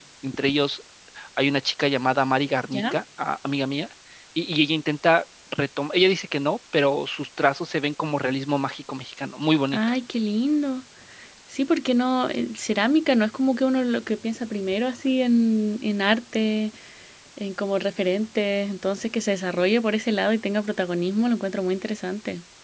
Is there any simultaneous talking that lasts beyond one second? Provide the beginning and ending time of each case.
none

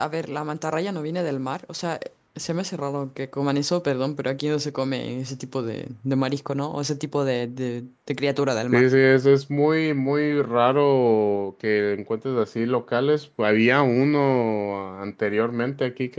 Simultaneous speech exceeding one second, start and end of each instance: none

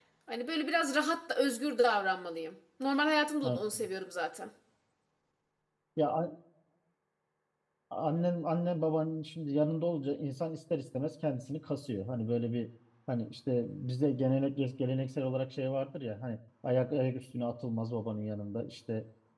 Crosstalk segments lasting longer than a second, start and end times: none

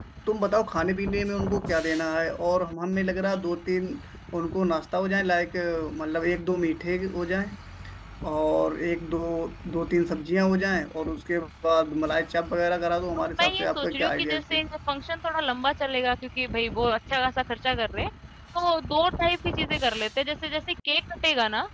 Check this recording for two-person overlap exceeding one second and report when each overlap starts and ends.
13.2-14.6

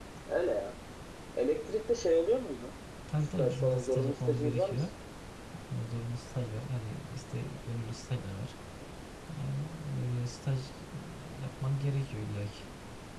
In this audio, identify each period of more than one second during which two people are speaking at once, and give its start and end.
3.4-4.8

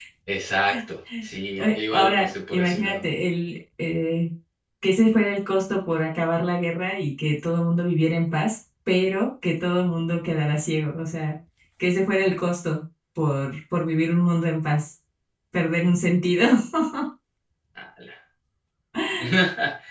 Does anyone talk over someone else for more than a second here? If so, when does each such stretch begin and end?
1.6-3.0

